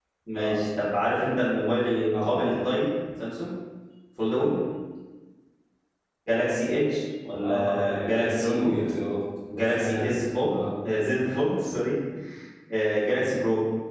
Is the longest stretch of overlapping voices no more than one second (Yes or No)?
No